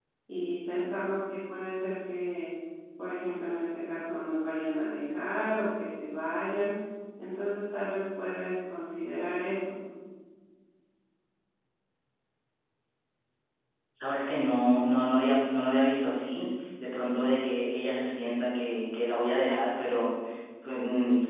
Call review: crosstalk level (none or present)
none